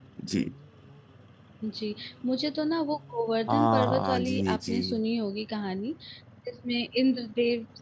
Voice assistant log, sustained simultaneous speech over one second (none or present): present